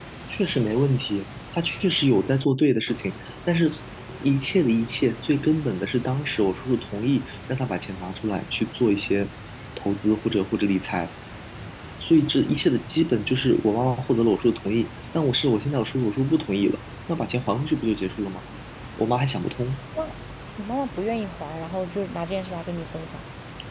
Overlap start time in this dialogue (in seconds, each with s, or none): none